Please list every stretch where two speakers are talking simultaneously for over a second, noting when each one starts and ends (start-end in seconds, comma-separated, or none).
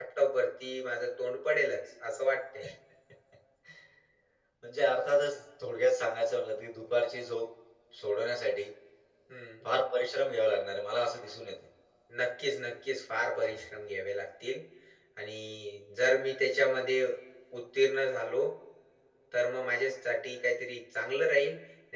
none